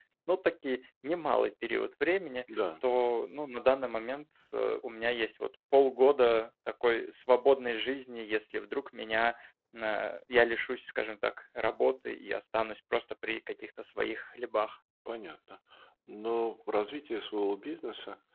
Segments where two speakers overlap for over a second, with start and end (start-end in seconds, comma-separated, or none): none